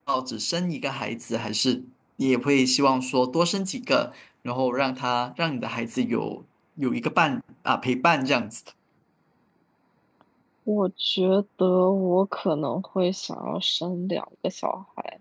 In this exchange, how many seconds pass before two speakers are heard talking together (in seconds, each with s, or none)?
none